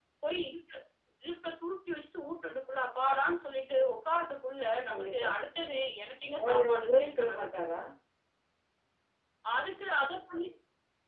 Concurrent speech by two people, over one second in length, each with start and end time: 6.4-7.8

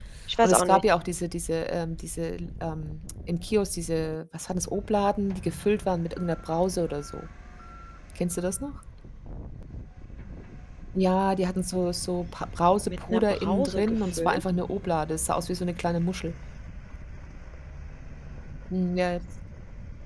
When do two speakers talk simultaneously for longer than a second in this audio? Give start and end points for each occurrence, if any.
12.9-14.4

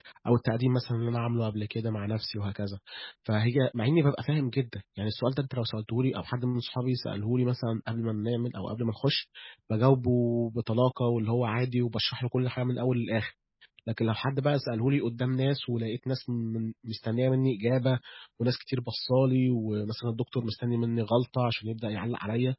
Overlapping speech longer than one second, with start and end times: none

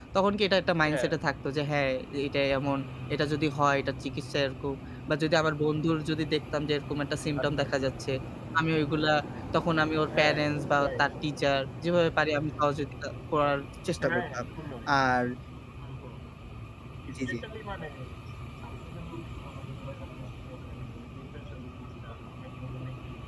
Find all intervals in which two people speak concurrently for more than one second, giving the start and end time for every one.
none

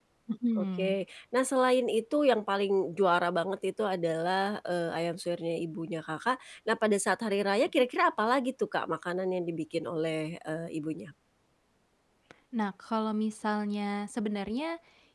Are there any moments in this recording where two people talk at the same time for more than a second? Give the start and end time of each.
none

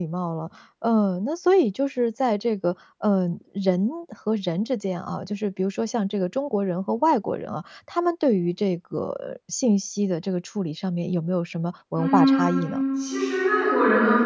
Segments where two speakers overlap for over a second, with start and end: none

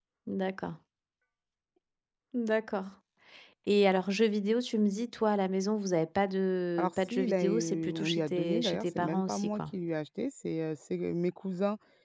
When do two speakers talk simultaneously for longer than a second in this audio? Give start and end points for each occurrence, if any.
6.8-9.6

